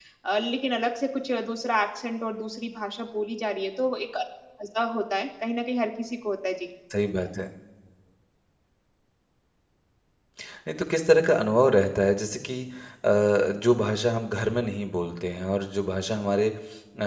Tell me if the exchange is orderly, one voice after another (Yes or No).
Yes